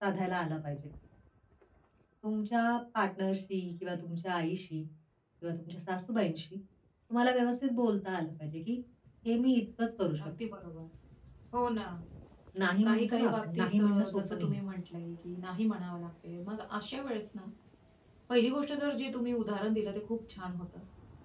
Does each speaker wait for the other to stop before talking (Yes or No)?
No